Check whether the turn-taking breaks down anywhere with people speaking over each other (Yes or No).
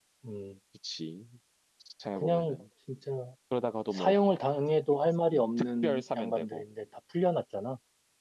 Yes